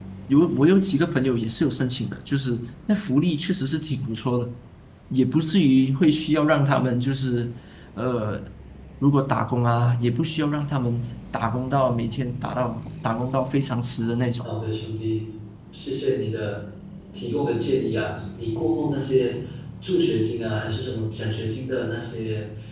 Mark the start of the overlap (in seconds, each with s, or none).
none